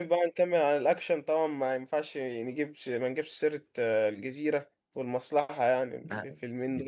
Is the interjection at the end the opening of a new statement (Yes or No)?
Yes